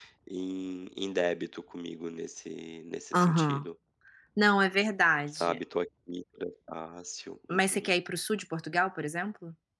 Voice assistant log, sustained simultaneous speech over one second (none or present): none